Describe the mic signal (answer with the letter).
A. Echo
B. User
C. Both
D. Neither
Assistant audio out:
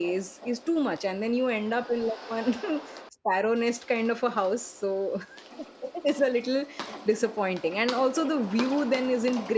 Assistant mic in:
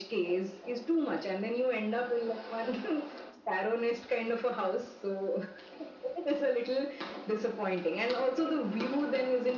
A